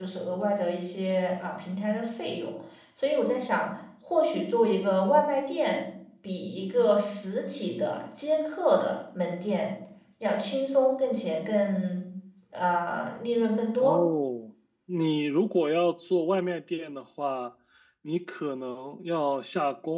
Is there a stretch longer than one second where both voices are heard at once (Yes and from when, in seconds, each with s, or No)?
No